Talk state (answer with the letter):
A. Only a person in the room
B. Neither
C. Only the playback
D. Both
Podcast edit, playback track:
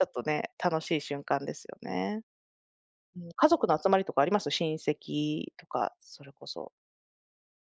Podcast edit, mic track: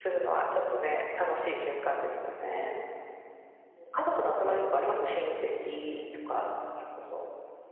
C